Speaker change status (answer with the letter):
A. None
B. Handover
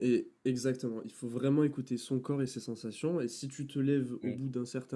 A